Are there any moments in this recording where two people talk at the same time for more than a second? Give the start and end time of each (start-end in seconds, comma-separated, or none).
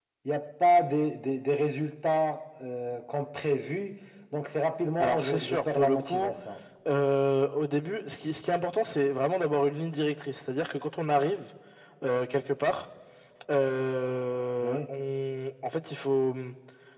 5.0-6.3